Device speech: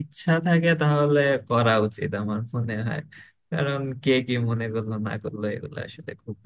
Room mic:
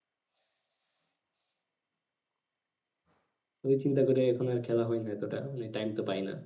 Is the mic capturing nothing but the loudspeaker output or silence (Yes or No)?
No